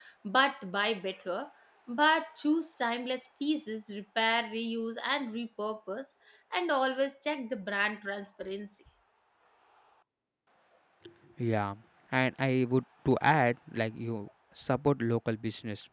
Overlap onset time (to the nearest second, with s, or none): none